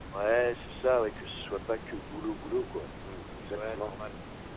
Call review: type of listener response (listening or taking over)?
taking over